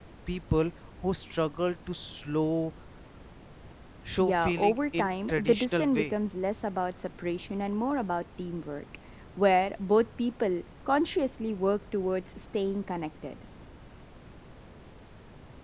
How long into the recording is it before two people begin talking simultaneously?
4 s

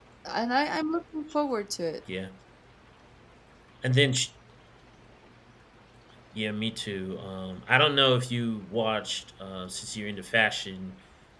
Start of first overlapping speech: none

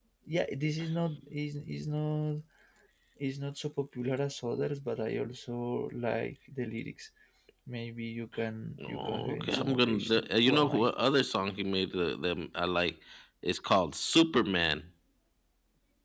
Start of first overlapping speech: 9 s

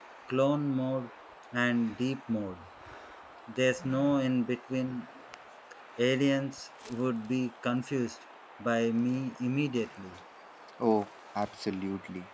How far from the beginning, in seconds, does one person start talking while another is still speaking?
none

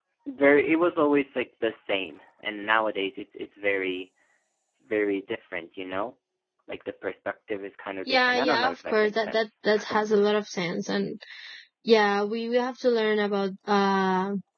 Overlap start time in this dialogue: 8 s

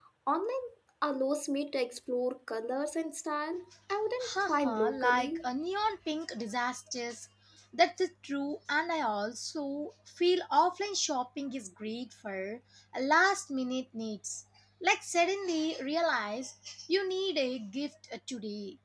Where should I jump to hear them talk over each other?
4 s

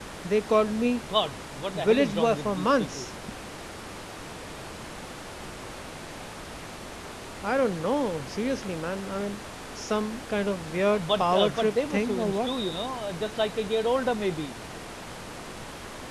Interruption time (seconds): 2 s

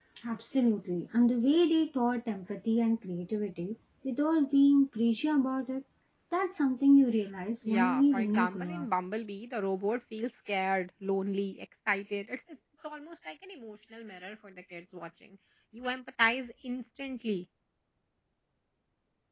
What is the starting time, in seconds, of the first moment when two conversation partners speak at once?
8 s

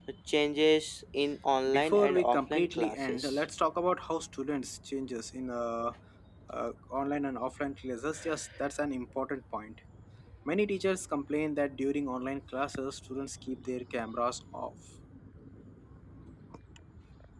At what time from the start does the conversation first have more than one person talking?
1 s

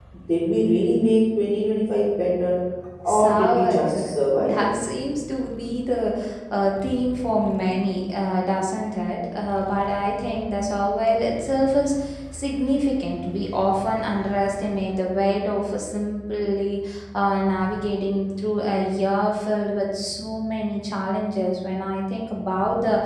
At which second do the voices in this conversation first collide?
3 s

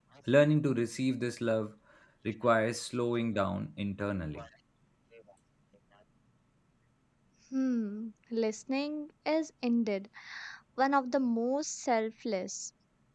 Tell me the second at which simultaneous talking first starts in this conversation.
none

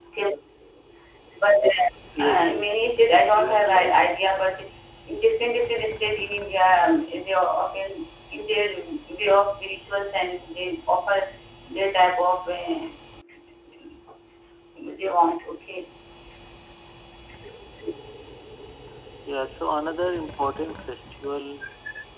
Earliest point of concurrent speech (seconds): 2 s

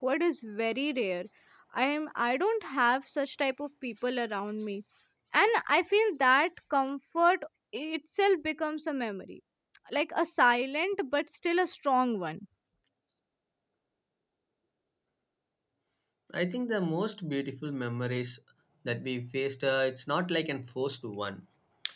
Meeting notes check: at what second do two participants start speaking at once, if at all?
none

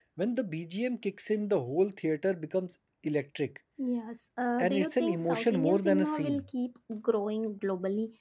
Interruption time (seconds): 5 s

